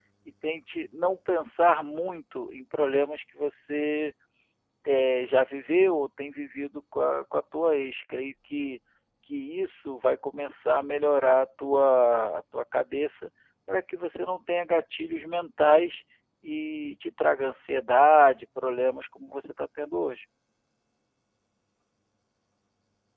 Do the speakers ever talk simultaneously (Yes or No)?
No